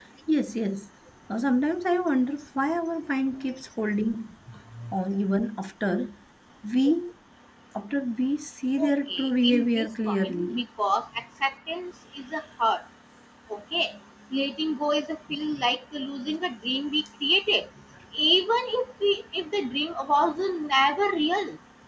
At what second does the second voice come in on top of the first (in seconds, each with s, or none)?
8.8 s